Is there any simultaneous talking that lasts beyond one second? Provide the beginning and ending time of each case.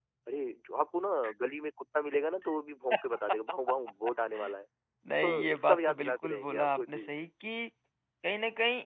5.2-7.1

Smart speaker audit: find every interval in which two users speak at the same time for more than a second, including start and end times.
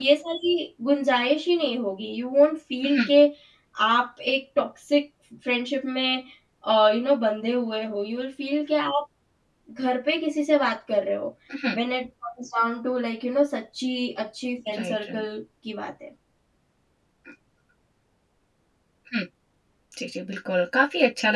none

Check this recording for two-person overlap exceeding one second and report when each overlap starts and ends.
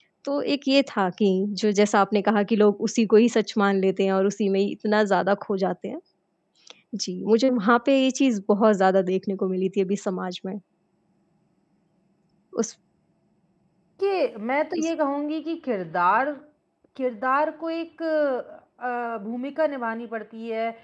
none

